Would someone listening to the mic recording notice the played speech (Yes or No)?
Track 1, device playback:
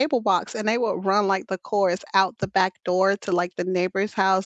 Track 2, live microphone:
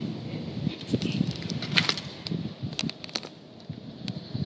No